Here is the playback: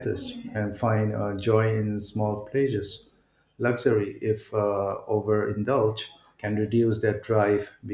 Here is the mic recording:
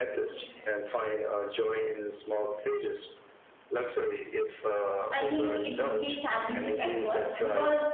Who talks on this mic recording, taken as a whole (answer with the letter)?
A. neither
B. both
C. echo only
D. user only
B